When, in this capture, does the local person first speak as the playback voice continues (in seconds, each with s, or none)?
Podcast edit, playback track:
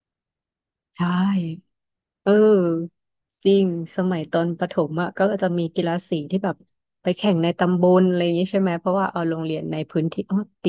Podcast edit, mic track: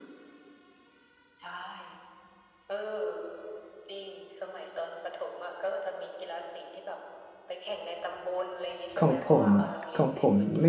9.0 s